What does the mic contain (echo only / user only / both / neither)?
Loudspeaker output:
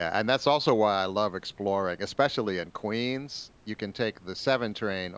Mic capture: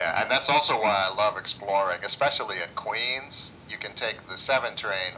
echo only